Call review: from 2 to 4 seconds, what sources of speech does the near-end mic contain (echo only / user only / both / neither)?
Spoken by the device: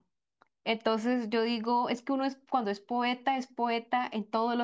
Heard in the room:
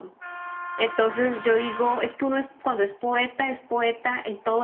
echo only